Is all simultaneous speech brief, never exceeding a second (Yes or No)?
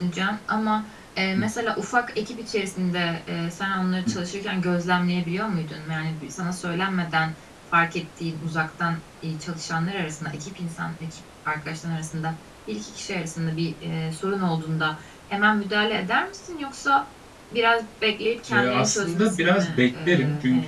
No